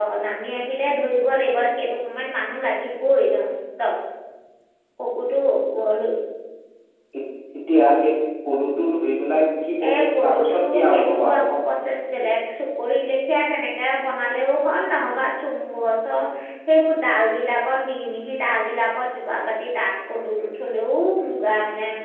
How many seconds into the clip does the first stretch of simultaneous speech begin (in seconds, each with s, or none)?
9.8 s